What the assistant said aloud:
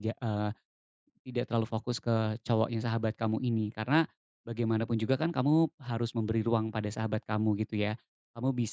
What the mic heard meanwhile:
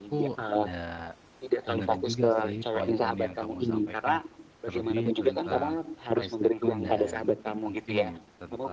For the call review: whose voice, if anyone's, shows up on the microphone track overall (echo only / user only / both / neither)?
both